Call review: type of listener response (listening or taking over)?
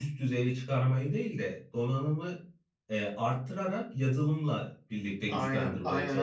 taking over